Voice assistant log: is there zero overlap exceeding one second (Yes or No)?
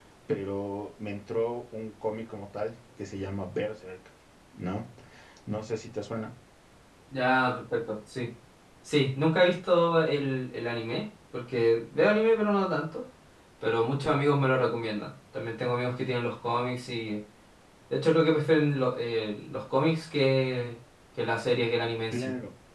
Yes